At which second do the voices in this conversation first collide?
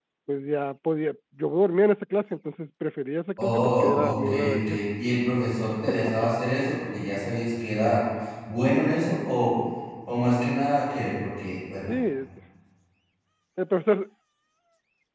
3.4 s

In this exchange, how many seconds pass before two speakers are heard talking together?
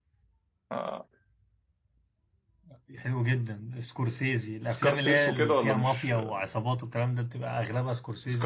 4.8 s

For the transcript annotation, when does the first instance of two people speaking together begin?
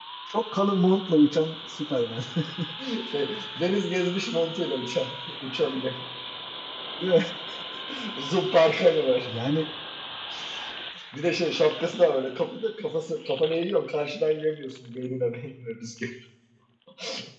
none

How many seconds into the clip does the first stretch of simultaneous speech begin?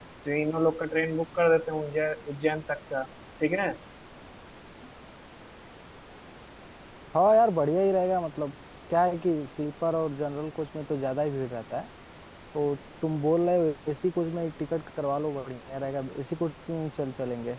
none

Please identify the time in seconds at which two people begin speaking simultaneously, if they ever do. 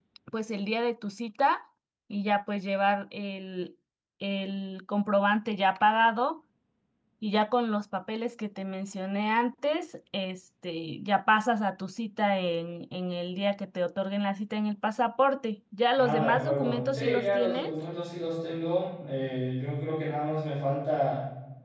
16.0 s

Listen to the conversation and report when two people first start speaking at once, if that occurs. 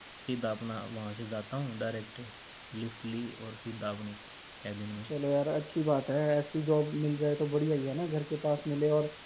none

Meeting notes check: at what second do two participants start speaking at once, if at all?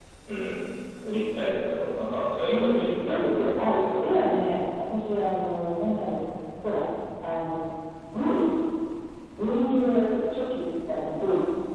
2.5 s

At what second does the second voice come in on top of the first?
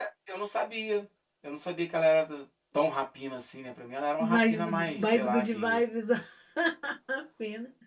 4.2 s

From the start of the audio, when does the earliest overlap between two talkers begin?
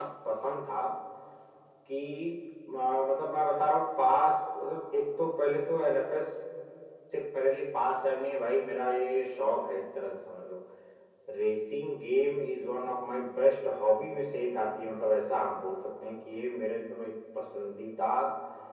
none

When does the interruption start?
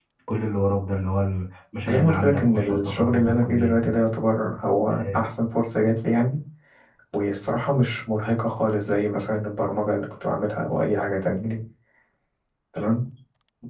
1.9 s

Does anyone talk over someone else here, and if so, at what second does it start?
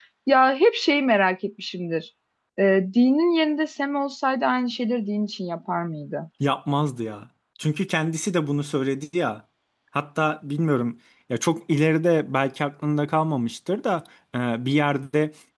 none

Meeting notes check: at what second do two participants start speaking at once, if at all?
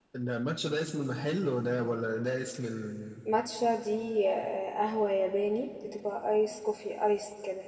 none

